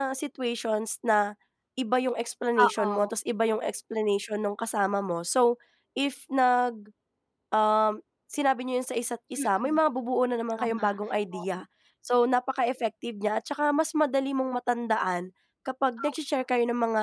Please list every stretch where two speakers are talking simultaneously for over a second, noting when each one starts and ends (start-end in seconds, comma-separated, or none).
none